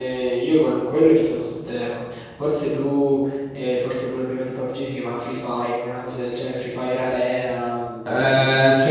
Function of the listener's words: taking over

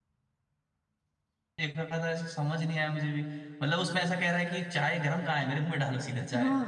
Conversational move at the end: taking over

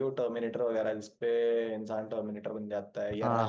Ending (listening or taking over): taking over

